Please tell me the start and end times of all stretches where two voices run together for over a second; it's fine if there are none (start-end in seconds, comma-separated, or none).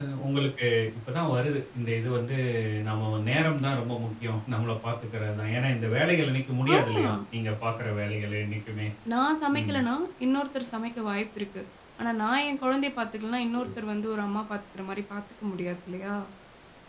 none